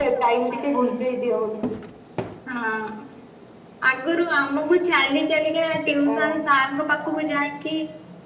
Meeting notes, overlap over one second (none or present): none